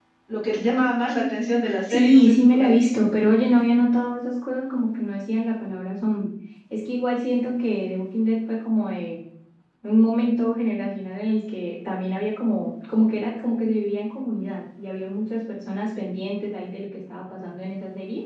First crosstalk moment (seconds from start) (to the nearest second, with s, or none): 2 s